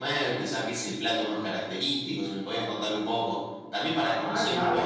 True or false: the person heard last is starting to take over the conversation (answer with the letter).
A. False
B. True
B